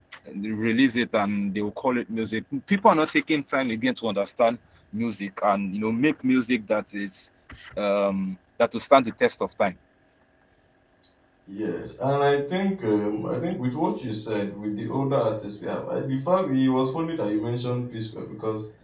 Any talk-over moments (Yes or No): No